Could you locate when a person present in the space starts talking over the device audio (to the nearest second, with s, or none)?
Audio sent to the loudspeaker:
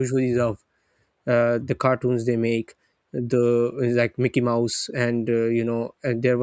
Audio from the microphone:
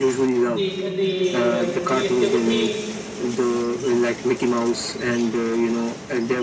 0 s